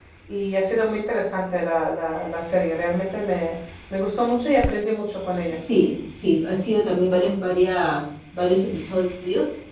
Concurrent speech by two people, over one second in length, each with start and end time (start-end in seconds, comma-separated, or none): none